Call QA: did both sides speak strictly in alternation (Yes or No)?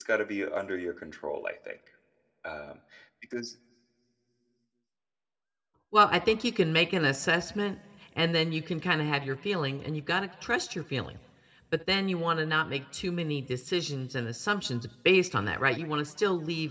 Yes